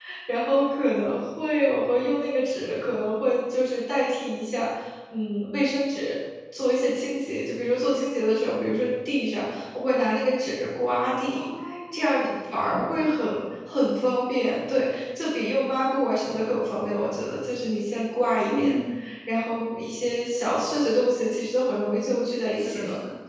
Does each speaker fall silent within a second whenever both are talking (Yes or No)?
Yes